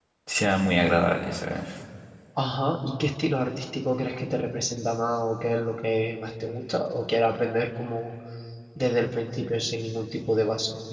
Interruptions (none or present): none